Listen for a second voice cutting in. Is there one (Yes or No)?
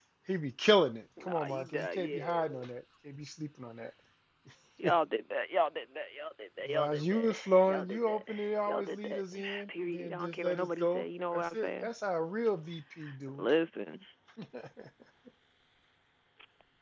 Yes